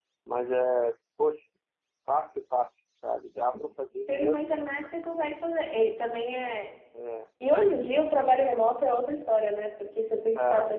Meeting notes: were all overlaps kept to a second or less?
Yes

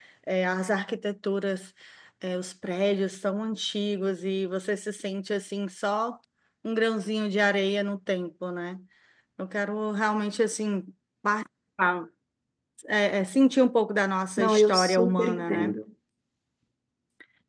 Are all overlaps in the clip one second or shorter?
No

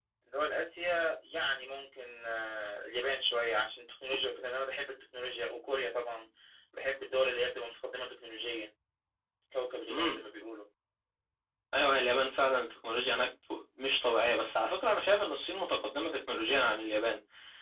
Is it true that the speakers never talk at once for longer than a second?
Yes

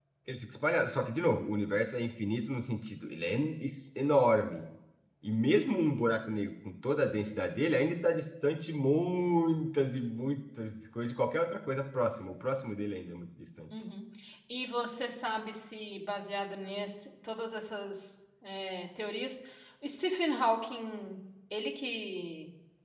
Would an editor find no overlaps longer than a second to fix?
Yes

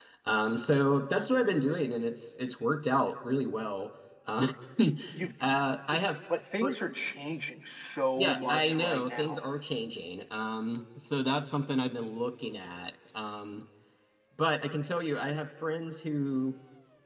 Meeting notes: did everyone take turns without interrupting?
No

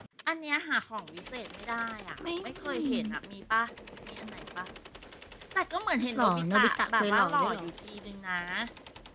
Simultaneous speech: Yes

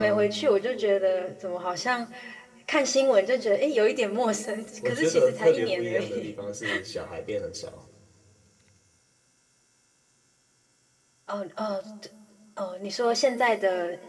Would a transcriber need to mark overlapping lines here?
Yes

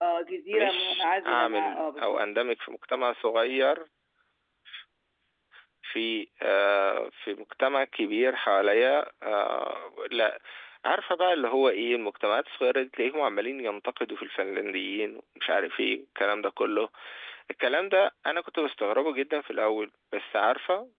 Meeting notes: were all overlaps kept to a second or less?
No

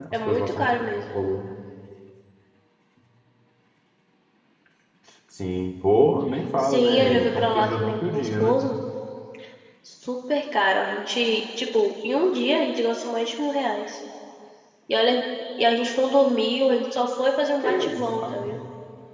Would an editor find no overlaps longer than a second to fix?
No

